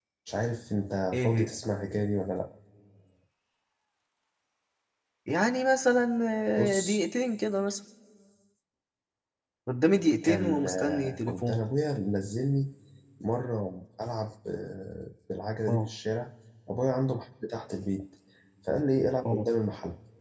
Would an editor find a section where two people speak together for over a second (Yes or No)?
Yes